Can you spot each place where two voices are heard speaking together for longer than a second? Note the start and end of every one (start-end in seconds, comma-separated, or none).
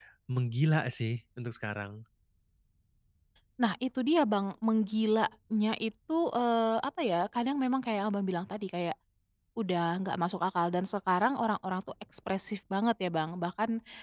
none